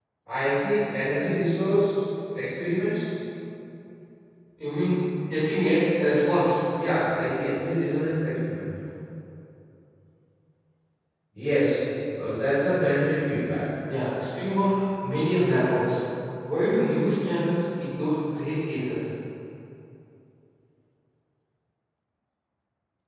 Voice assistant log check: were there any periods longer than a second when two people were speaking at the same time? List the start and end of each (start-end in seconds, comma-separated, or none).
none